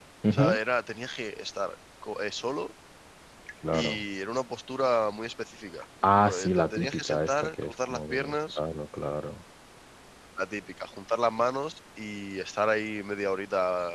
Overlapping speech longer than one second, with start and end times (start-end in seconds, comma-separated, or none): 6.1-8.6